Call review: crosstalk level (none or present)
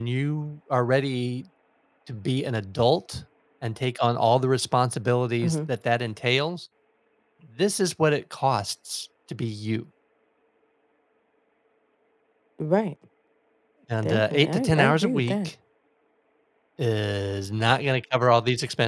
present